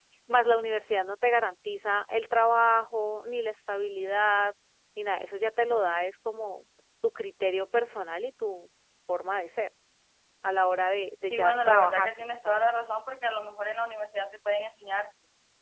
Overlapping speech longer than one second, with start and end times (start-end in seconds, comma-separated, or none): 11.2-12.6